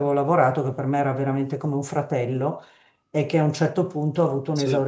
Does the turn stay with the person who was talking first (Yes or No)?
Yes